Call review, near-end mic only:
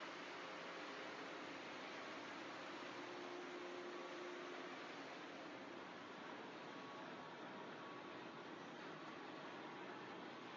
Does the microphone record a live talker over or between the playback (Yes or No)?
No